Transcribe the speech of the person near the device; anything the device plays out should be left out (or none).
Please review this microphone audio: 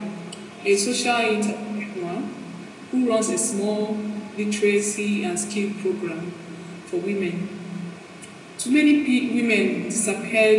none